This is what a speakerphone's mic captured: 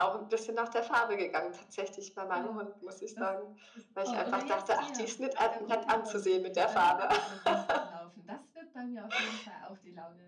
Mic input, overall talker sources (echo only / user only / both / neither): both